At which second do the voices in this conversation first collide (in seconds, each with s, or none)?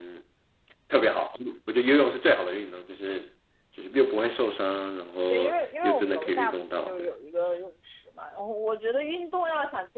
5.3 s